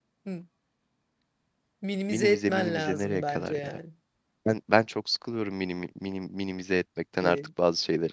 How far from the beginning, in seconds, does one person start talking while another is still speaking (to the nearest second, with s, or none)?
2 s